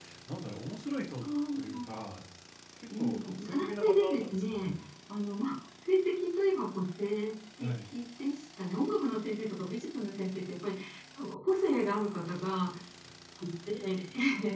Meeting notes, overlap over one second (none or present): present